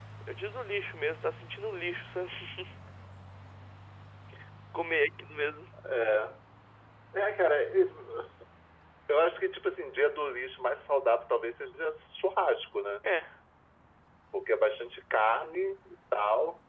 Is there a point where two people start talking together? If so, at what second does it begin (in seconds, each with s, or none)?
none